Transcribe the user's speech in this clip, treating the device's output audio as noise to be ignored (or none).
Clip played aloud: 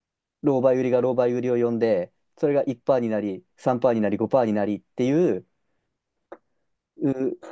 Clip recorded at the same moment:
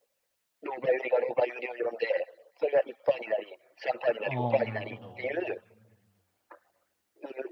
ああ、なるほど。